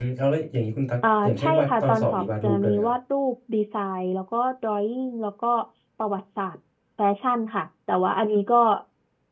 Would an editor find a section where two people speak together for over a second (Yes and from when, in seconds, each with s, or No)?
Yes, from 1.2 s